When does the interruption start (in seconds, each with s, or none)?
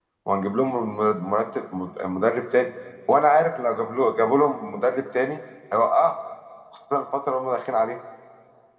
none